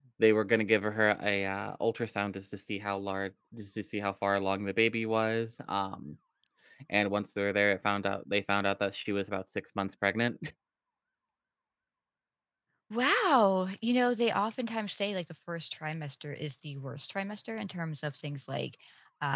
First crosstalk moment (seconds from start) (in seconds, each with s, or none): none